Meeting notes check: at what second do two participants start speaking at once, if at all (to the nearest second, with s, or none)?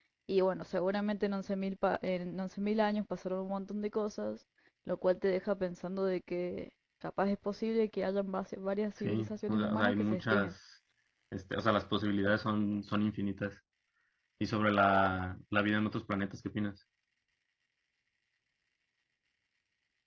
9 s